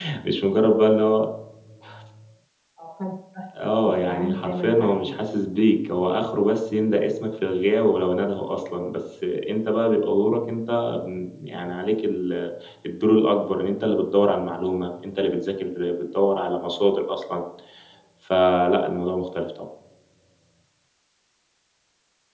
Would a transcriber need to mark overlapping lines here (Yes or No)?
Yes